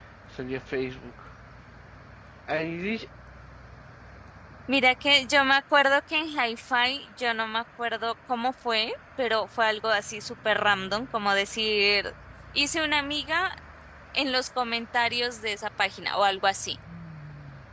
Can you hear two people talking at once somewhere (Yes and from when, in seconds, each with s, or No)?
No